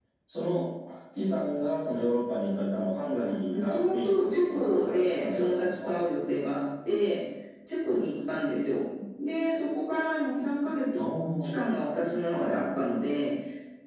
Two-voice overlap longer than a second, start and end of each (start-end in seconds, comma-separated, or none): 3.5-5.9